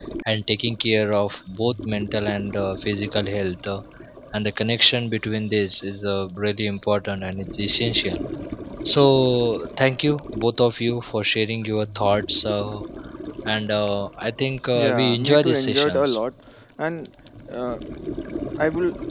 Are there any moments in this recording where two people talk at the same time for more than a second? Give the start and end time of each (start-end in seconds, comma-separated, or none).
14.7-16.2